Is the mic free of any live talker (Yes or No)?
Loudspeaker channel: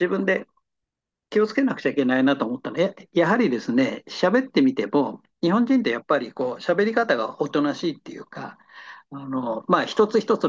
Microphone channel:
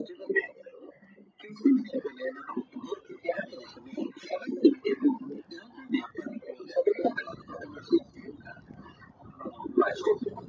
Yes